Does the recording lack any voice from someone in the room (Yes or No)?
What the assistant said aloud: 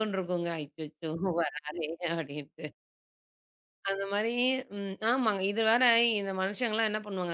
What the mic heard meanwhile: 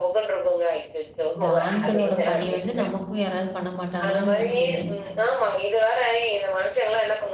No